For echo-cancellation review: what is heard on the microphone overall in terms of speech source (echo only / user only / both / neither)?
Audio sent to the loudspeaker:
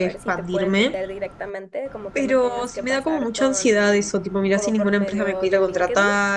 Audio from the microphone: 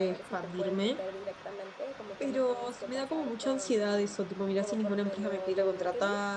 echo only